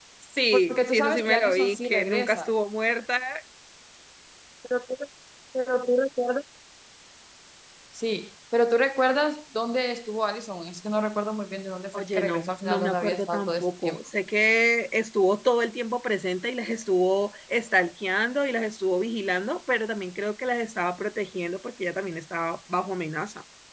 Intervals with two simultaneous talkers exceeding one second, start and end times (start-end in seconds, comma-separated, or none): 0.5-2.5, 12.0-14.0